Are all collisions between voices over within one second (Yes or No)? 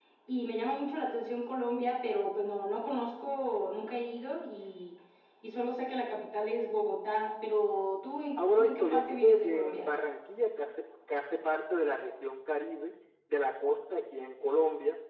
No